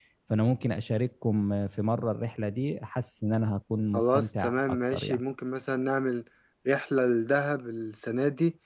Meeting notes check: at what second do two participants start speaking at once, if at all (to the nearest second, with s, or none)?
4 s